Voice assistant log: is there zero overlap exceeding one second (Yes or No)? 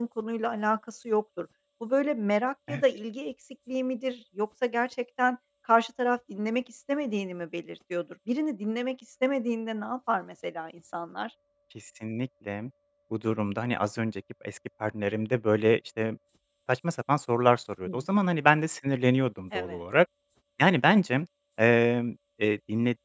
Yes